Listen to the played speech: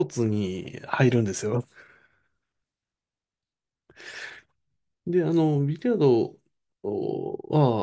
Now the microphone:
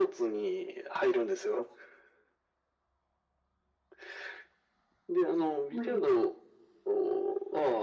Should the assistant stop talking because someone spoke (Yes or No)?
Yes